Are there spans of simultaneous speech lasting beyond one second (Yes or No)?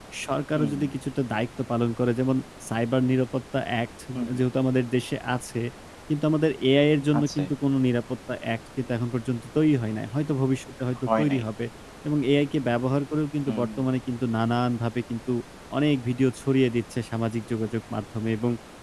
No